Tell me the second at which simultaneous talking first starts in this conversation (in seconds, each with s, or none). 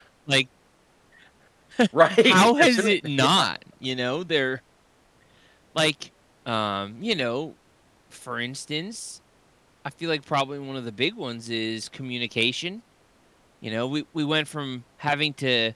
2.2 s